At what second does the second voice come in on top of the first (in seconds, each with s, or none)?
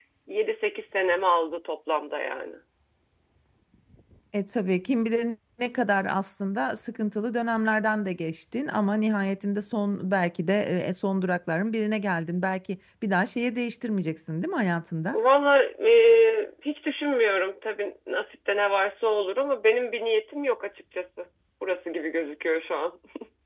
none